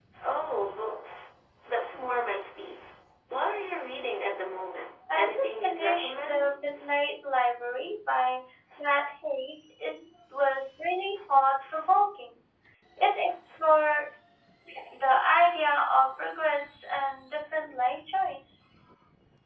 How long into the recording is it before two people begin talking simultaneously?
5.1 s

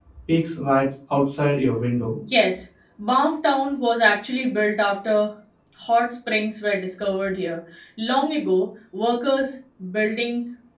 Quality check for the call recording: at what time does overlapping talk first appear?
none

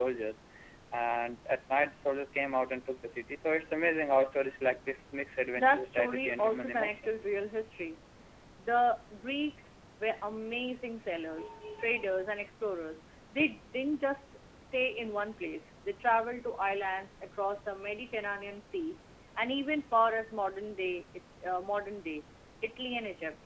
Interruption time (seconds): 5.6 s

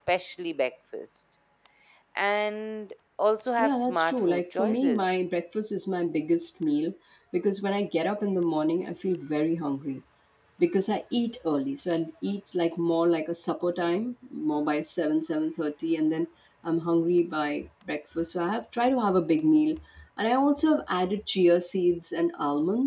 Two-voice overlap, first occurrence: 3.6 s

